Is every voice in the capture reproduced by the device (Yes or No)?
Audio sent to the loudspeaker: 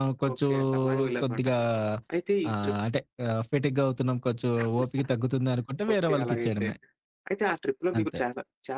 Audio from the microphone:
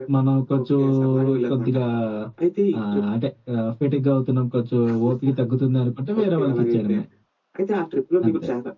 Yes